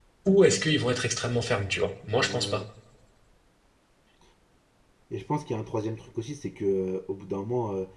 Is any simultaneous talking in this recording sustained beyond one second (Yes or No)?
No